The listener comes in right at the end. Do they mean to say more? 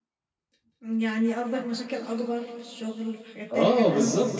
Yes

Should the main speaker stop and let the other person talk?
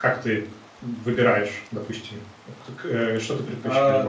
Yes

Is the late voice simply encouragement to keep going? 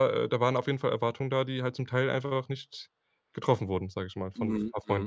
No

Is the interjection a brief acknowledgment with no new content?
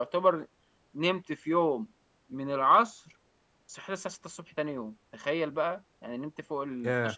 Yes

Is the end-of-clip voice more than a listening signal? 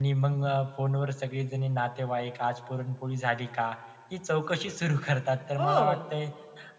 No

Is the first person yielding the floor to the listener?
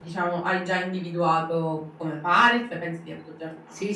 Yes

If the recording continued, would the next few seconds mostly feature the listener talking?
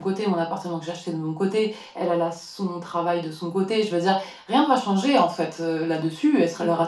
No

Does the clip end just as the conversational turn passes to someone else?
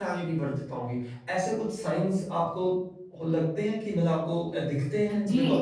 Yes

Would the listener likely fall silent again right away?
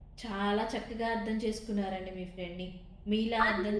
Yes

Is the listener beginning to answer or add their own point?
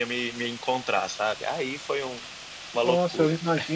Yes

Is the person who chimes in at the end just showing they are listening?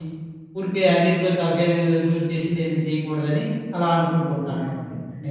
No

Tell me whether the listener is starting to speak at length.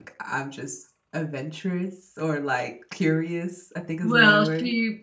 Yes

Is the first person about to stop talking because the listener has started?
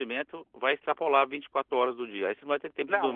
Yes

